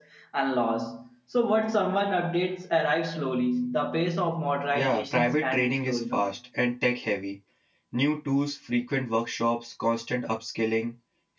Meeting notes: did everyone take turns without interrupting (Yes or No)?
No